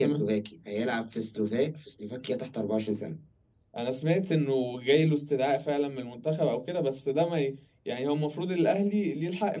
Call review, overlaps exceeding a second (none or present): none